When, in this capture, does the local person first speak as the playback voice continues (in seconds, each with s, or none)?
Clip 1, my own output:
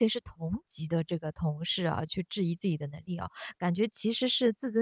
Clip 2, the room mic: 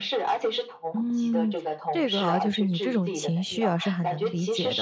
0.9 s